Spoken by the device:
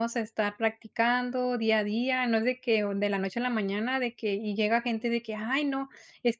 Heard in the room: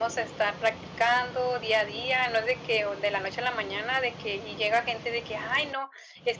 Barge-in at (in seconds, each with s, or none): none